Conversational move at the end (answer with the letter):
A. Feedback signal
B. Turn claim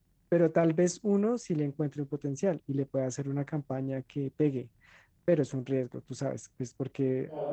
B